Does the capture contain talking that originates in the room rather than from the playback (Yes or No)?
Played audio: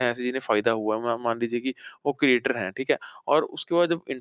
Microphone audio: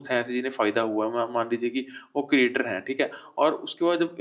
No